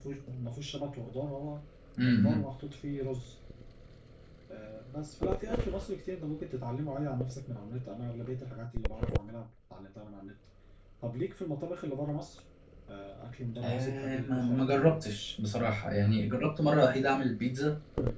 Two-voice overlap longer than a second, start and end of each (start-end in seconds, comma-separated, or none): 13.6-14.8